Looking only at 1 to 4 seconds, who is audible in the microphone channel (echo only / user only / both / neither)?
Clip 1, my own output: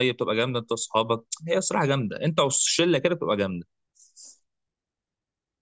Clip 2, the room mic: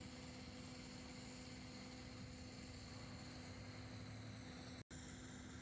neither